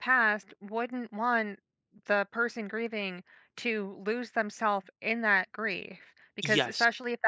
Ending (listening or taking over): listening